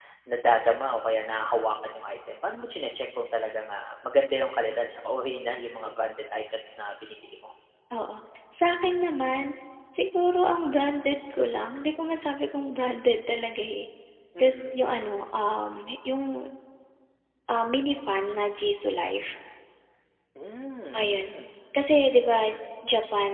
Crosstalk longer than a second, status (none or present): none